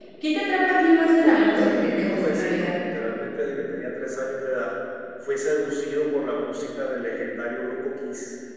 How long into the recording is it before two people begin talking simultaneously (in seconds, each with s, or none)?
1.2 s